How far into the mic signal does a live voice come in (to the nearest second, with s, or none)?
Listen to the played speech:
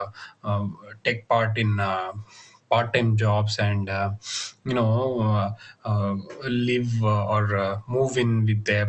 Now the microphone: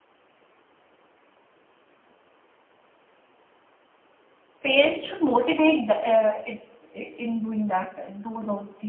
5 s